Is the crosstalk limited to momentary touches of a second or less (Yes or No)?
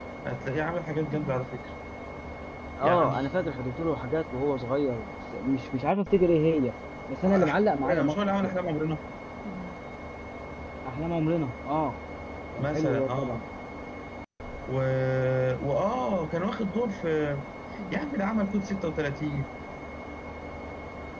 No